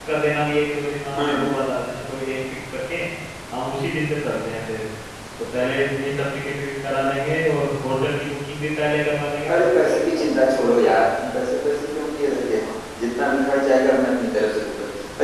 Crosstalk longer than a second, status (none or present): present